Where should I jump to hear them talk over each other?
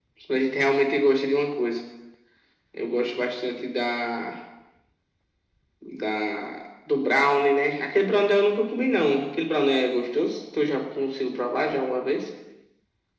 none

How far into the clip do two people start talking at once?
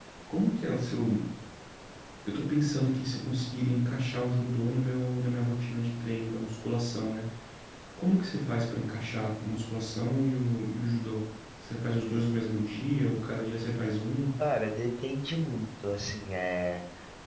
none

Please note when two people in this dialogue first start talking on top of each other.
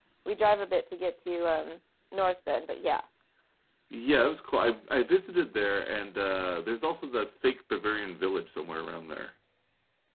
none

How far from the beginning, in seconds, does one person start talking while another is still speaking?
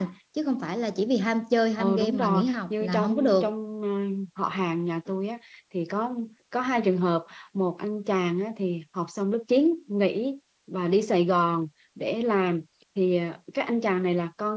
2 s

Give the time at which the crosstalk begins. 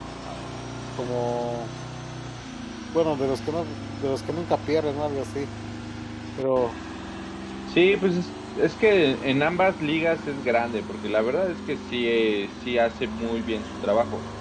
none

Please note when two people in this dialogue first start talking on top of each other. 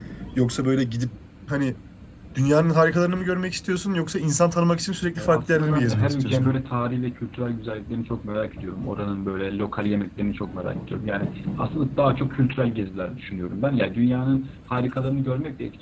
5 s

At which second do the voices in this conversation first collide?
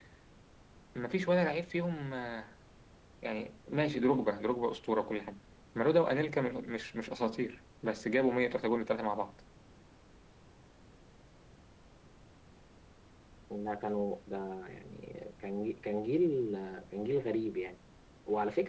none

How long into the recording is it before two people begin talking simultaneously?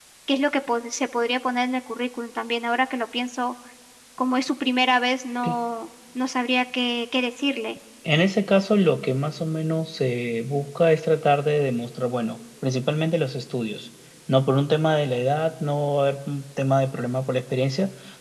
none

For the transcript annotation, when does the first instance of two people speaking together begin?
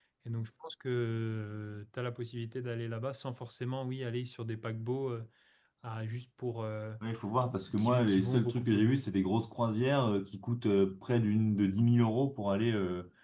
8 s

